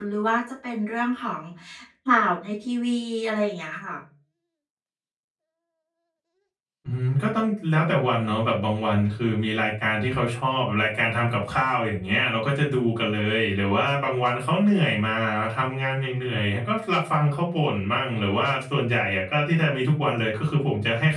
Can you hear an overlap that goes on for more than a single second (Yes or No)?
No